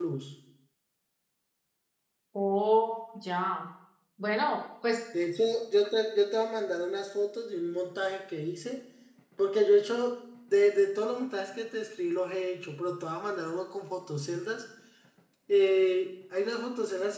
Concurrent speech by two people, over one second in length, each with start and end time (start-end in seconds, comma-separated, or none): none